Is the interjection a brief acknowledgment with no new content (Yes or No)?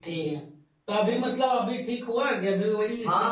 No